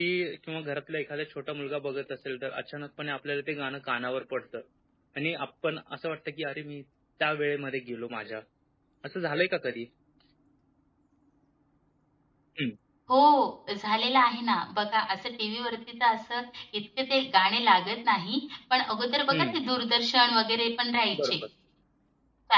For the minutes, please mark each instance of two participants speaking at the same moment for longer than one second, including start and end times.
none

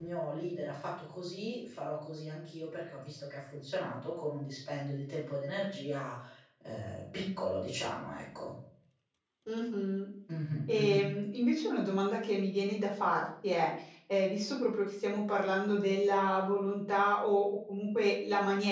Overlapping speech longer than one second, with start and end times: none

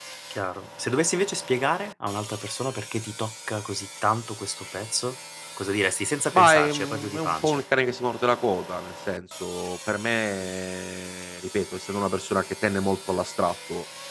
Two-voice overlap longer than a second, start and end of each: 6.3-7.6

